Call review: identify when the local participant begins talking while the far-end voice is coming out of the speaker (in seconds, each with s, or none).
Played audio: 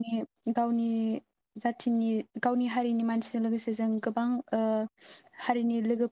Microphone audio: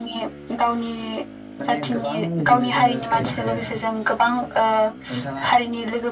1.6 s